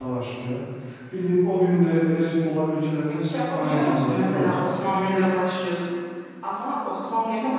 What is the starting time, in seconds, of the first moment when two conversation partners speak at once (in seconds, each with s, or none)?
3.1 s